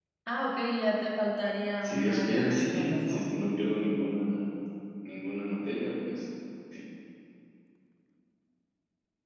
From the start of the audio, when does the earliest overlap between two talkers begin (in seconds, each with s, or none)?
1.8 s